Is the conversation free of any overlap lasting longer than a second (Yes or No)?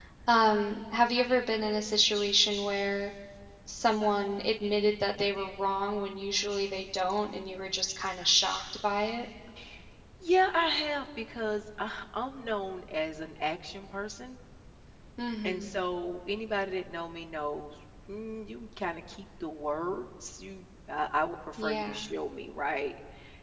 Yes